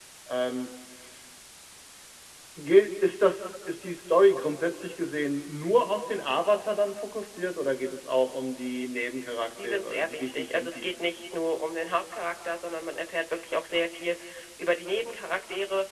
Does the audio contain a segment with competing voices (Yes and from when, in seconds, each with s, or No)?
Yes, from 9.6 s